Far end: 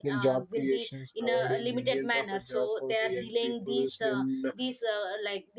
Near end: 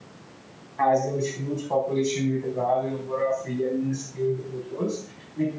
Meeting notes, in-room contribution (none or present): present